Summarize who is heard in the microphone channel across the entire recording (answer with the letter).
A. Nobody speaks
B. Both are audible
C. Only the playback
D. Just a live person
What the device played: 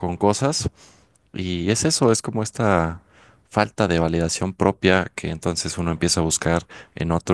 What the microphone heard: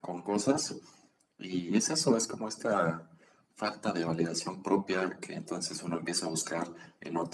C